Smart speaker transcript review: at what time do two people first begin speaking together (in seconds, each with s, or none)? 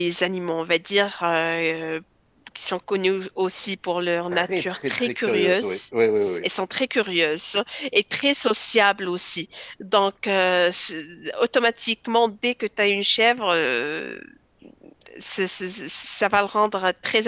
4.3 s